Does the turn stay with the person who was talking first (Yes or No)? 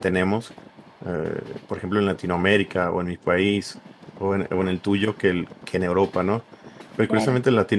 Yes